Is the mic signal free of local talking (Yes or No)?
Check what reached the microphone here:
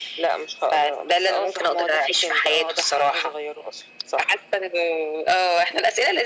Yes